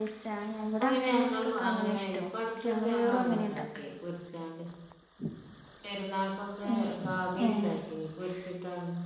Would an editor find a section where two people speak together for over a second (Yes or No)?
Yes